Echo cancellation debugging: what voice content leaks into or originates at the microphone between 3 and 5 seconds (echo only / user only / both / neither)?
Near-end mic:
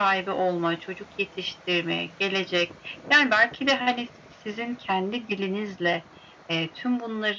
echo only